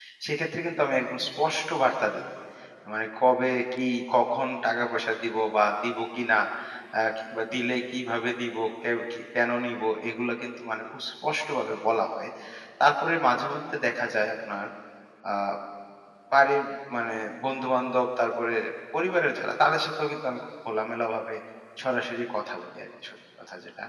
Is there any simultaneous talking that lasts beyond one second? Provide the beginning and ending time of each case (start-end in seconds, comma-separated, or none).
none